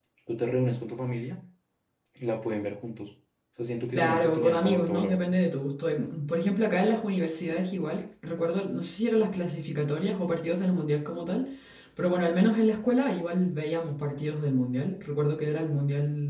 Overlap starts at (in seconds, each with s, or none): 4.0 s